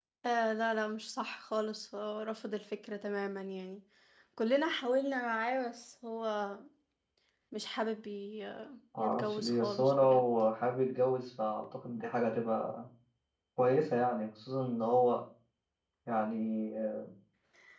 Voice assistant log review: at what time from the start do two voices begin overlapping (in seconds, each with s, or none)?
8.9 s